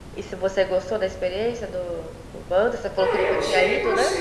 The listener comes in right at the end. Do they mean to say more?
Yes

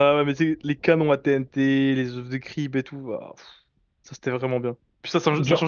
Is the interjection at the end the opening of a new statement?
No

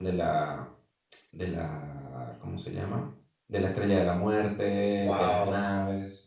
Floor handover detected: No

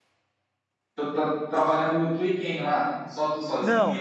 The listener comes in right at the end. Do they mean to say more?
Yes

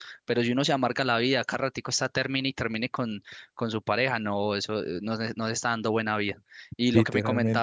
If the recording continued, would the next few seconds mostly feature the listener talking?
No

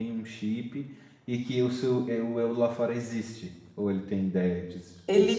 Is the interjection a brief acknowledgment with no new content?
No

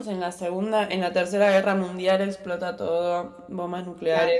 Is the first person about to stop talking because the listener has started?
Yes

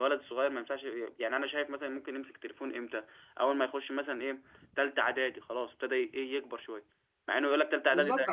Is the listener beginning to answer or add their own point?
Yes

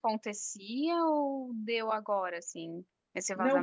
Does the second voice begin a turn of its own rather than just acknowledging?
Yes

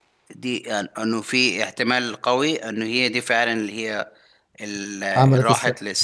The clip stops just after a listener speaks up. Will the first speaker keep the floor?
Yes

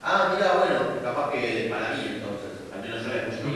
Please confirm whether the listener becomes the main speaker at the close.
Yes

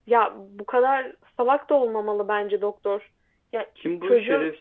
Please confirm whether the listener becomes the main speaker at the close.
Yes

